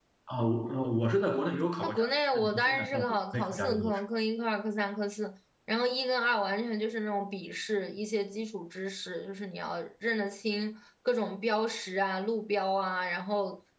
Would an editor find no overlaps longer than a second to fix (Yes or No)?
No